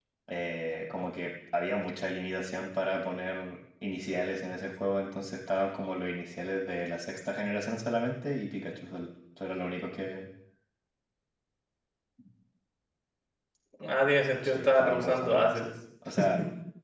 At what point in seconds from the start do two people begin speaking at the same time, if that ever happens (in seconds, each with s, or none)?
14.4 s